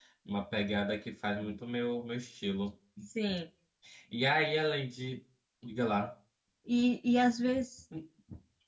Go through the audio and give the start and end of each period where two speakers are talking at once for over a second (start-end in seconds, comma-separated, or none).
none